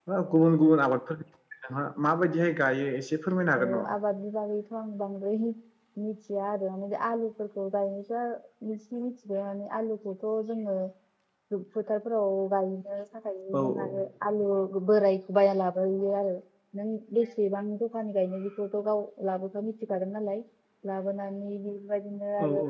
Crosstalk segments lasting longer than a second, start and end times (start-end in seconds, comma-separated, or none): none